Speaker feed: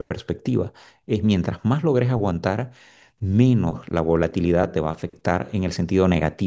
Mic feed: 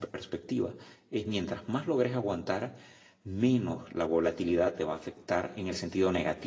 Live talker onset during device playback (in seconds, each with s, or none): none